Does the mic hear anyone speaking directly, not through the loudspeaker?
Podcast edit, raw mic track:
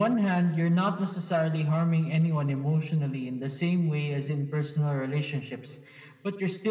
No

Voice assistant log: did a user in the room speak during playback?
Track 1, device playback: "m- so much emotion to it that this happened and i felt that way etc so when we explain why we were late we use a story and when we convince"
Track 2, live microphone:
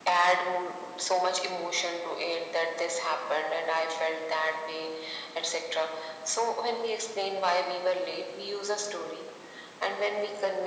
No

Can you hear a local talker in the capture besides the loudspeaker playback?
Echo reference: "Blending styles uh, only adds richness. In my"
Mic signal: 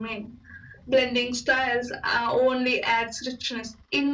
No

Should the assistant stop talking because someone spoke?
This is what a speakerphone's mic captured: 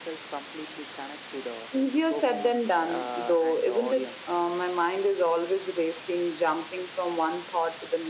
No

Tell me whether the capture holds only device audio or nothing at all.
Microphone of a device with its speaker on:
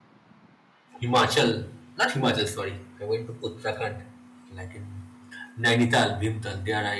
No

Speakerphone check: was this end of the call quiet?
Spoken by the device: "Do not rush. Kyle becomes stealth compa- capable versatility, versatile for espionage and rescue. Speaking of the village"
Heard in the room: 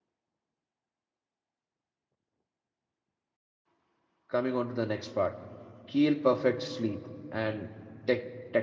No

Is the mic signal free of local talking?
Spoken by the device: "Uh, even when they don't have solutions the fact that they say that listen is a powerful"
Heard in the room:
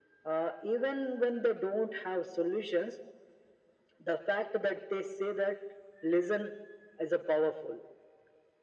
Yes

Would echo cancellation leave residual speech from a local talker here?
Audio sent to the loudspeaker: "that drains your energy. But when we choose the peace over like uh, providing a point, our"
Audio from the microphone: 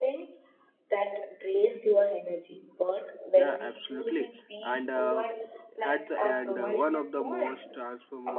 Yes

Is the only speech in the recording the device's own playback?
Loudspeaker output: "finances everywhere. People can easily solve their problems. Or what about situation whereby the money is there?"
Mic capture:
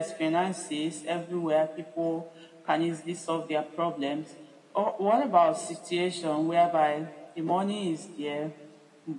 Yes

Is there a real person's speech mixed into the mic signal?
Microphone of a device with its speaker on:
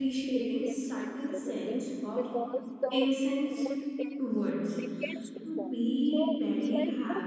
Yes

